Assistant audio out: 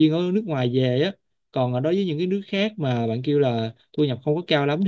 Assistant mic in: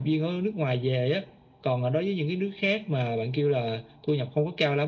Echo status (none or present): present